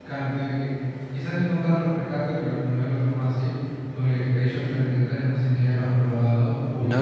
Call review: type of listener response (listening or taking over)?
taking over